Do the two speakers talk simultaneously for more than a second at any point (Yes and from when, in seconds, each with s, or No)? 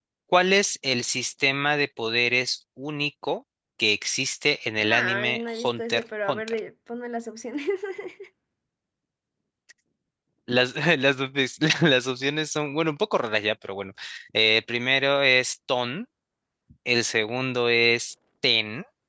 Yes, from 4.8 s